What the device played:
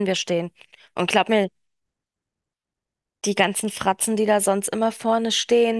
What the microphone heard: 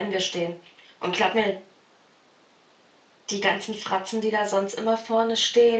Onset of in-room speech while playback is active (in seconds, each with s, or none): none